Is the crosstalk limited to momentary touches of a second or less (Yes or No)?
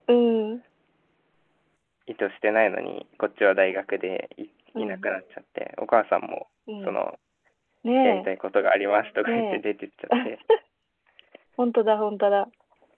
Yes